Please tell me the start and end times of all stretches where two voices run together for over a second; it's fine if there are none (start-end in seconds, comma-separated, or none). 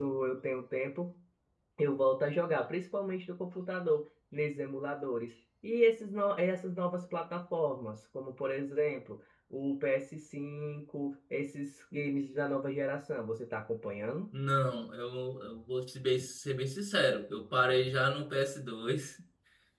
none